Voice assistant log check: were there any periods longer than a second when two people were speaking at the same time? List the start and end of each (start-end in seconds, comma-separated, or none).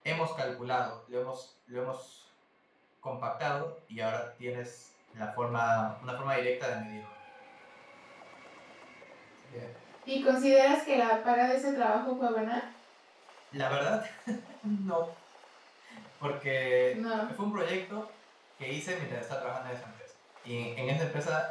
none